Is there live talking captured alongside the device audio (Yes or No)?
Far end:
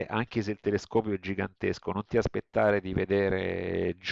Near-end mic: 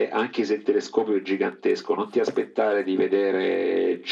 No